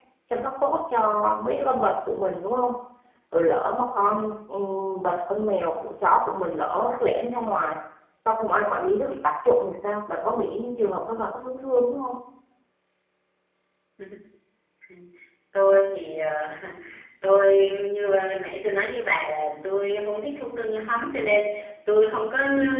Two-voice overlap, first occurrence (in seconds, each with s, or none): none